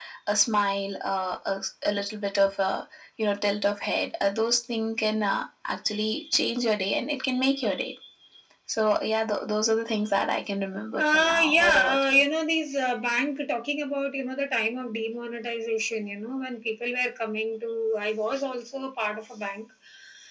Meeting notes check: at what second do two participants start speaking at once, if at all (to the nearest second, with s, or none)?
11 s